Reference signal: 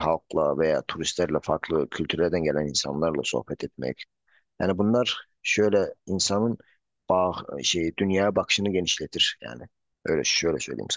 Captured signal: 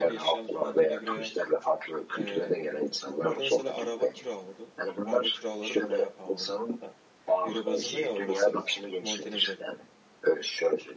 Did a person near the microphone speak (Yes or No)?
Yes